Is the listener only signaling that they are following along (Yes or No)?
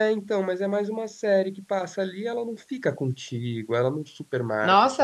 No